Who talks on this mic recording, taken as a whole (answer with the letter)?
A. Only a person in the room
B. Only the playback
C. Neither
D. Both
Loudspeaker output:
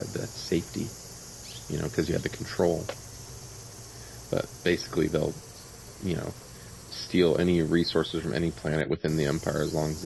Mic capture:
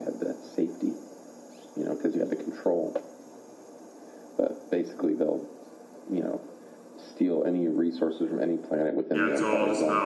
D